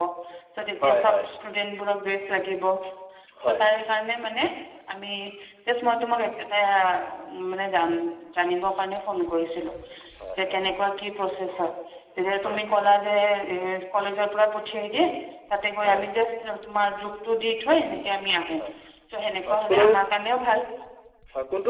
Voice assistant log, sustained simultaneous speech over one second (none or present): none